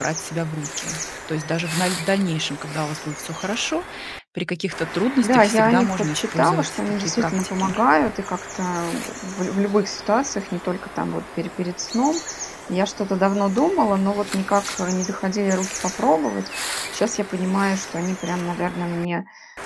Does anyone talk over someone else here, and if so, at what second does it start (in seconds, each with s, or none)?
5.2 s